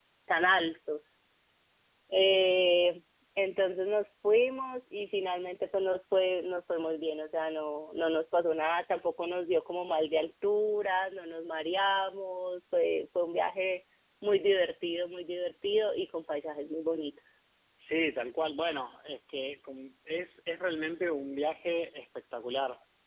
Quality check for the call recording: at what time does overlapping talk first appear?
none

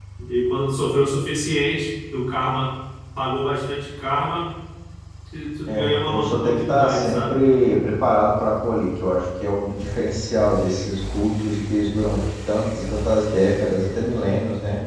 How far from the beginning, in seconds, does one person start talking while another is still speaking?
5.7 s

